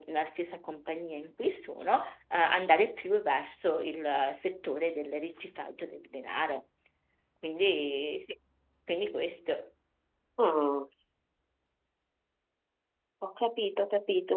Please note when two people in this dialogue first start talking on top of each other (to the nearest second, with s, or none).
none